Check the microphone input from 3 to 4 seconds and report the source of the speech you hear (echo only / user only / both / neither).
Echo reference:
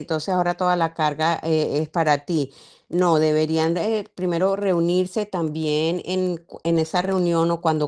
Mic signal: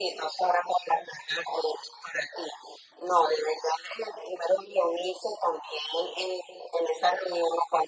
echo only